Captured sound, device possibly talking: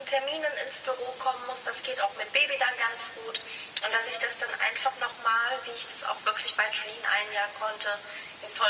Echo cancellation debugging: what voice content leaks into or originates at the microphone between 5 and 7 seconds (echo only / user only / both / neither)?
echo only